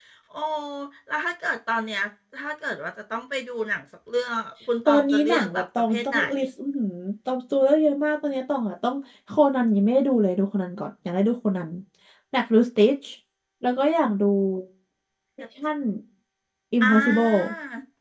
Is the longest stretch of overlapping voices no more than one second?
No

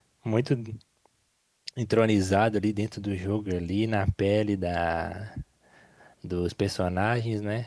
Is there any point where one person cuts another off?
No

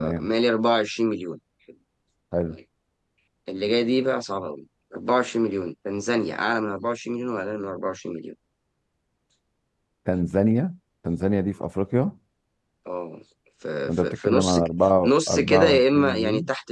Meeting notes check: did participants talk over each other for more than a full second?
Yes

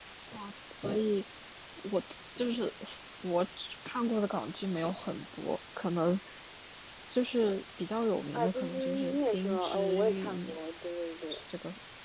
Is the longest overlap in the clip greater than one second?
Yes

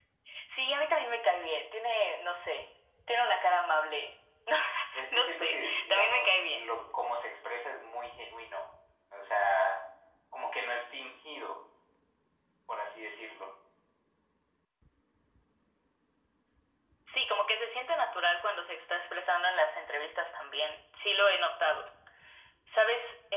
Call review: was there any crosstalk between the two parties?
Yes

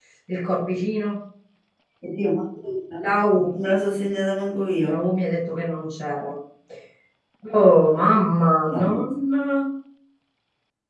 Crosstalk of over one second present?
No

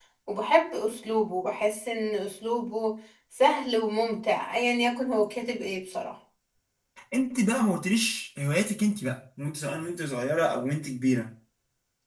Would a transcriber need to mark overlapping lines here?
No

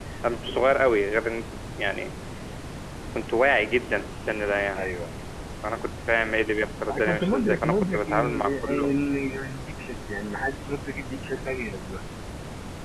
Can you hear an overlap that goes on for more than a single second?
Yes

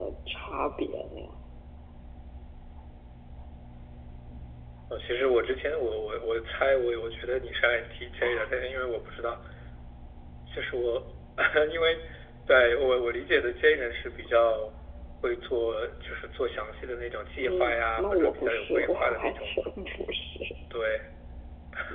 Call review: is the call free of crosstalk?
No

